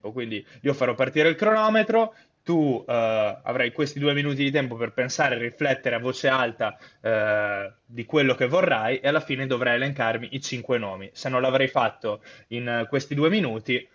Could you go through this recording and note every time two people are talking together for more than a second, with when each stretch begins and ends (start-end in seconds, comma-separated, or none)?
none